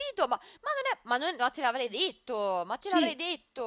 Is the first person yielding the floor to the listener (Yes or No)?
Yes